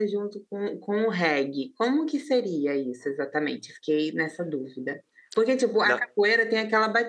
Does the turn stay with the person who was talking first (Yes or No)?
Yes